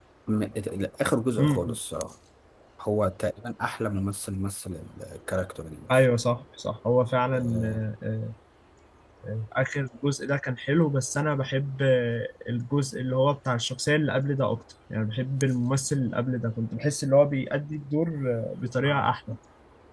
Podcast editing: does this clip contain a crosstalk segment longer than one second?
No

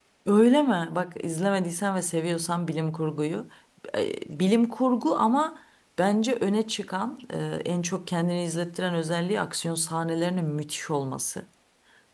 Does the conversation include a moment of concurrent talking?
No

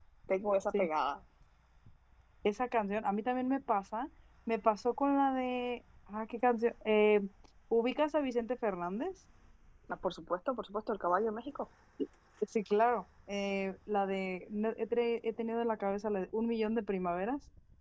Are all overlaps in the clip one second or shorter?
Yes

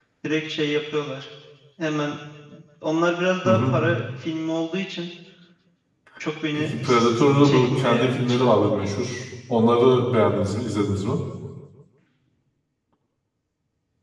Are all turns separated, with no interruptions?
No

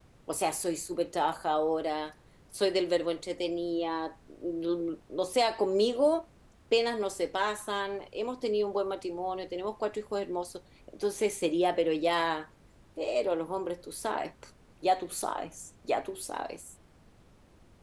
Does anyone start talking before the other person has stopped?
No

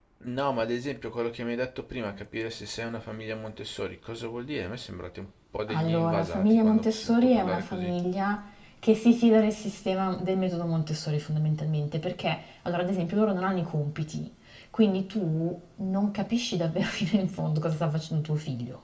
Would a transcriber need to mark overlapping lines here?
Yes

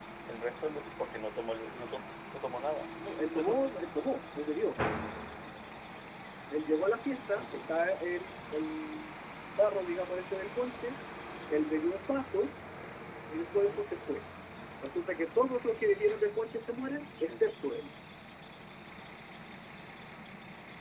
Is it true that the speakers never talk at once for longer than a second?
Yes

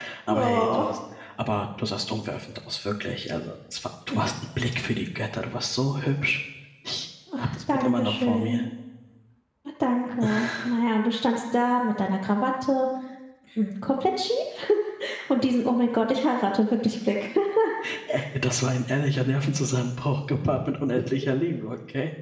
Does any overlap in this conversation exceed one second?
Yes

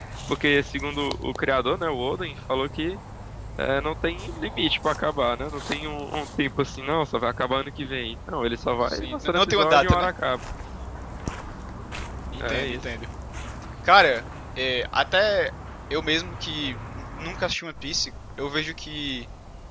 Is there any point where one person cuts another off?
Yes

